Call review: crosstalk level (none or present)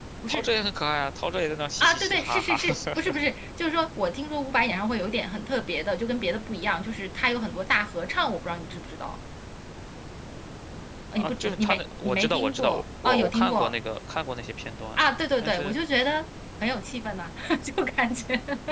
present